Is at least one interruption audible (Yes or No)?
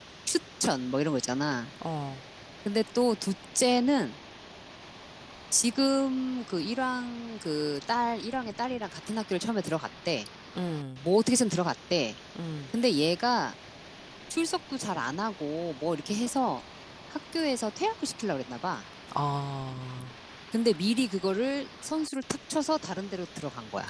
No